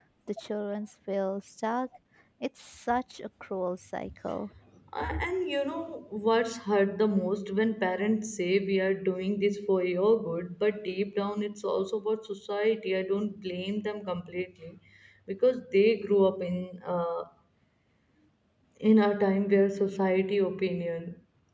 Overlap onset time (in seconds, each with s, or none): none